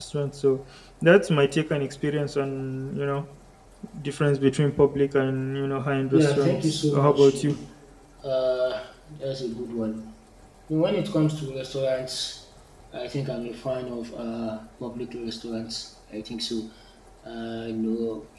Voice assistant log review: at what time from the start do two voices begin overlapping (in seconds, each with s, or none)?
6.1 s